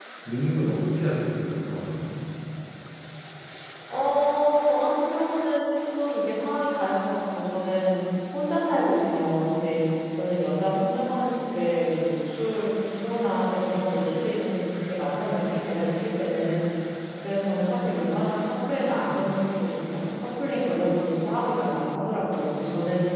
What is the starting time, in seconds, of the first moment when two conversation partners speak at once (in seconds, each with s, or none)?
none